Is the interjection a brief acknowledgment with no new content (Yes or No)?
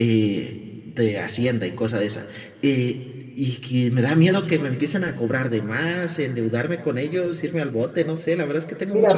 No